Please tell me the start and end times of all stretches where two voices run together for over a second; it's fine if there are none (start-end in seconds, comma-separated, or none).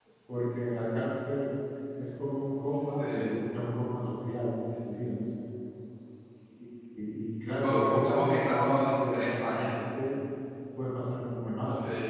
7.6-9.7